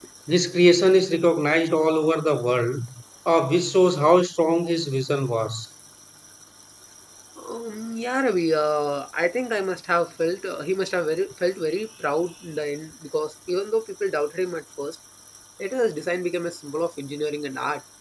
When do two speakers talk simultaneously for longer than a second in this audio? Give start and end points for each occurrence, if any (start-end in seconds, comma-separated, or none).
none